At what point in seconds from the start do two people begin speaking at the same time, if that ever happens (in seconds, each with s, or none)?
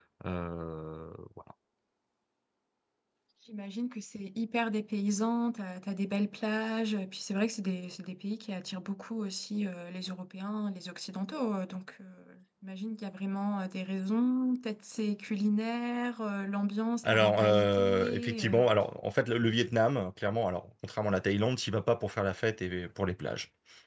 17.0 s